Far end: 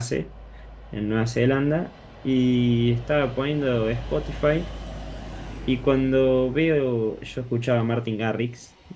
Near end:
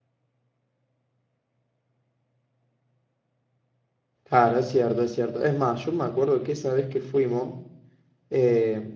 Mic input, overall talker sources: user only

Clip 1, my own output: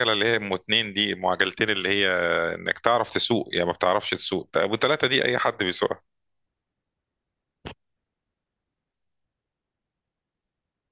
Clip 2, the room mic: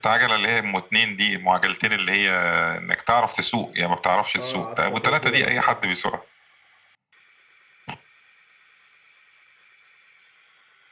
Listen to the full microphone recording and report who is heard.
both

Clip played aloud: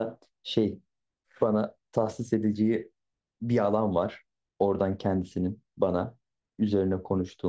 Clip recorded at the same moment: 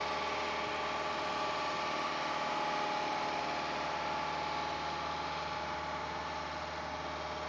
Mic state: neither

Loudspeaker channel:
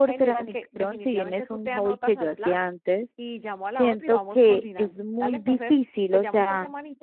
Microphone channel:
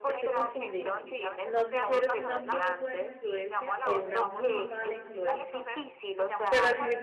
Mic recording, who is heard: both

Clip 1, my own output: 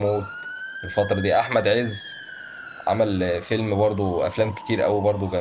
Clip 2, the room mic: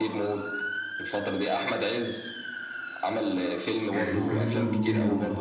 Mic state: both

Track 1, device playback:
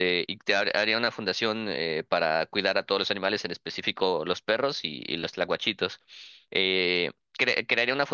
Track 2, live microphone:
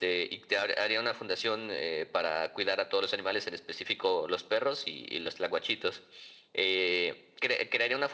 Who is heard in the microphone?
echo only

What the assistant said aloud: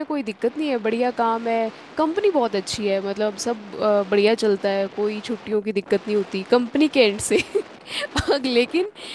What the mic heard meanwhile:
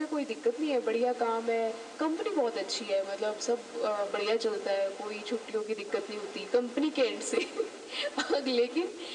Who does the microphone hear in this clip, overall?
echo only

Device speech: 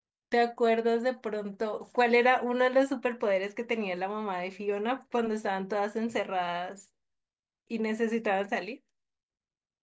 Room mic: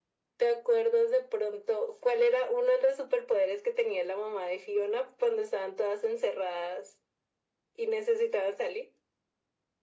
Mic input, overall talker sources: echo only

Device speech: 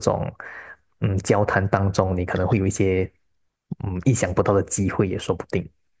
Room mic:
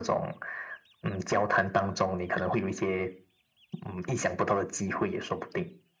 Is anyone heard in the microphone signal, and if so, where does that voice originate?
echo only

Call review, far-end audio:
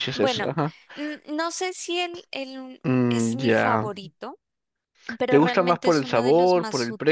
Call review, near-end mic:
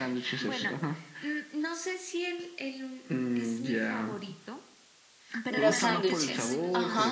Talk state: both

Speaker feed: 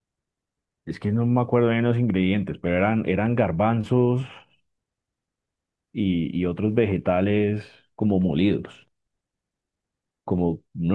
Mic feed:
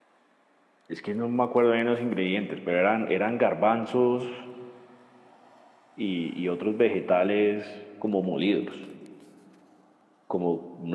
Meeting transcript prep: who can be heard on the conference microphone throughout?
echo only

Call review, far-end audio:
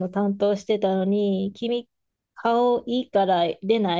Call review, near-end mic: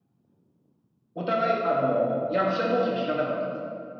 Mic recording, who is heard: user only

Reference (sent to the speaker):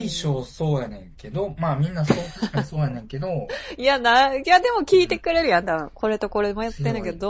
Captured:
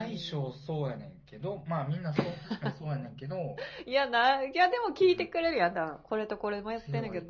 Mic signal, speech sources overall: echo only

